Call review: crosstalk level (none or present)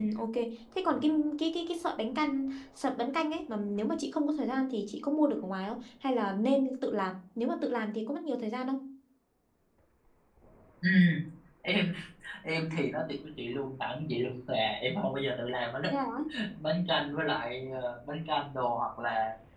none